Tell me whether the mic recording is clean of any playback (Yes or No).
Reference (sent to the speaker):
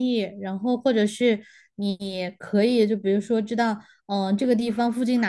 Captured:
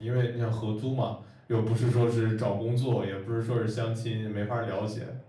Yes